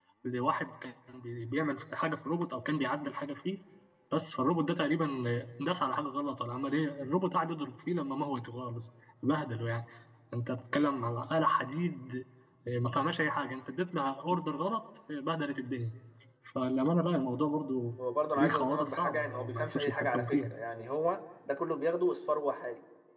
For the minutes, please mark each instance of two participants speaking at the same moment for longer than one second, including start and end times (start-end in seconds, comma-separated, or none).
18.4-20.5